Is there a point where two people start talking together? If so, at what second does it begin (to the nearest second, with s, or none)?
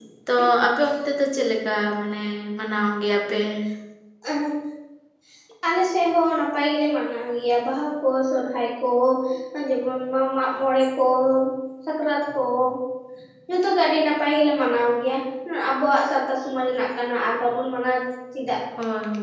none